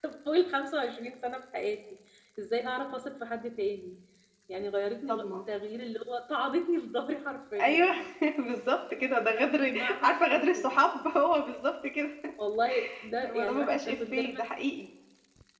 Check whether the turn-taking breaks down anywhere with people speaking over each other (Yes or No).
Yes